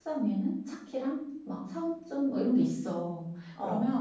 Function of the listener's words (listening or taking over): listening